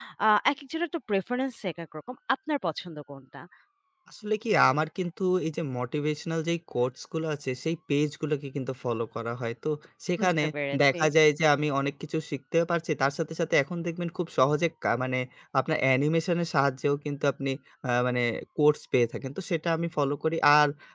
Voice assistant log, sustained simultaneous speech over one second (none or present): none